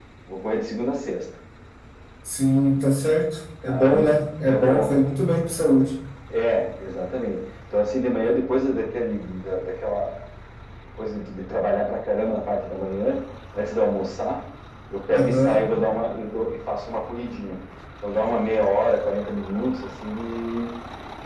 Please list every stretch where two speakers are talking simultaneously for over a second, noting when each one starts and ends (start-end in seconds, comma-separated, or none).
3.7-4.9